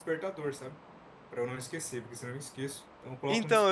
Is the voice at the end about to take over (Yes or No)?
Yes